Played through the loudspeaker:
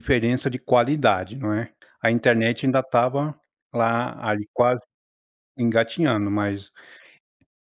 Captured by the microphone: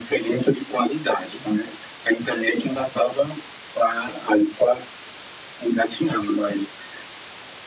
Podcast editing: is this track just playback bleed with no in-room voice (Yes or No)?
Yes